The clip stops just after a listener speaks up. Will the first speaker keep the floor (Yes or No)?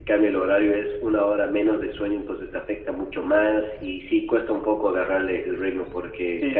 No